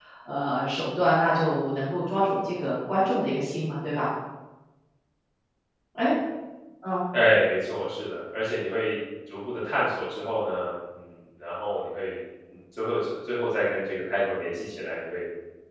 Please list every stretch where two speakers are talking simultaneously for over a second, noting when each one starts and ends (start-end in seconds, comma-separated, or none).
none